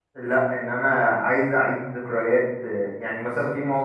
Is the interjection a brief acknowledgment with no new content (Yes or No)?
Yes